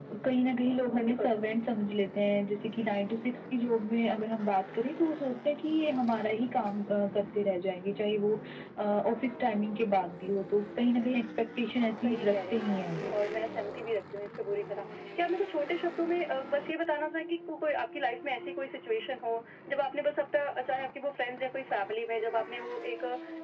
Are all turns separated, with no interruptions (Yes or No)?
No